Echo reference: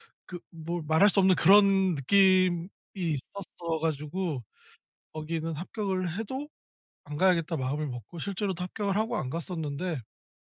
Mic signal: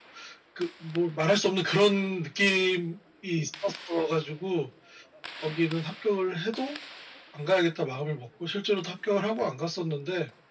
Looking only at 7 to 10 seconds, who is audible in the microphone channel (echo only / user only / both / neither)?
echo only